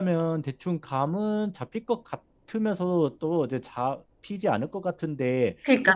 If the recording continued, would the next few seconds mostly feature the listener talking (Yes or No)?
Yes